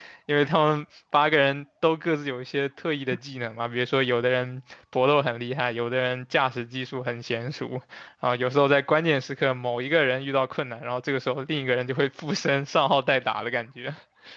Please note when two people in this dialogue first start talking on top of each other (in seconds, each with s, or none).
none